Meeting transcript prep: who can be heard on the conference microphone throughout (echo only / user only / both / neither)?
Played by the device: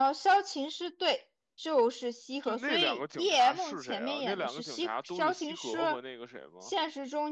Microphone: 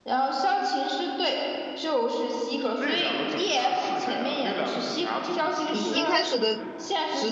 both